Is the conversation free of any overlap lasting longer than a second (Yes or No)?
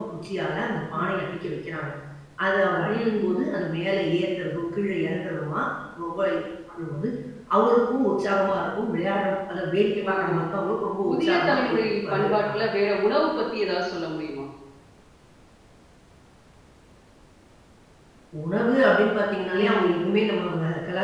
No